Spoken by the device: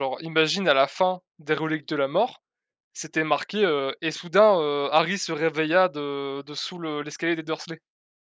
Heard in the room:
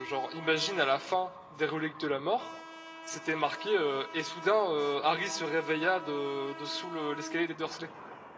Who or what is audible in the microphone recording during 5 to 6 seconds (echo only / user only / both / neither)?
echo only